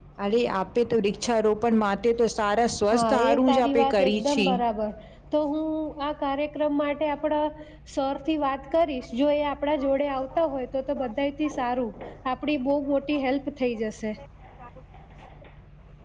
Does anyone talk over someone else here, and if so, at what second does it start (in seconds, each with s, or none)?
2.9 s